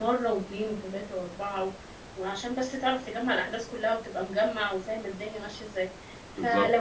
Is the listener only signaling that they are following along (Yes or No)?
Yes